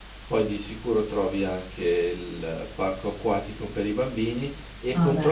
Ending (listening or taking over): listening